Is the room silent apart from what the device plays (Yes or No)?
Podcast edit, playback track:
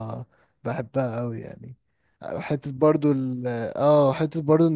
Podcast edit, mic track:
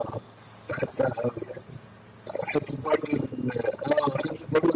Yes